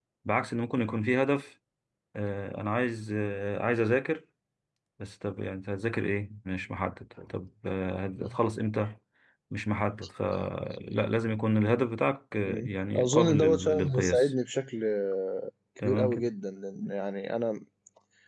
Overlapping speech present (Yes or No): Yes